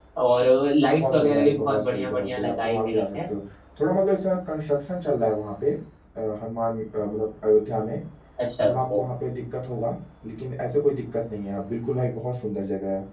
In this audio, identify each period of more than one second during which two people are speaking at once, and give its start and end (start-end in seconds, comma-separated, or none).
0.9-3.2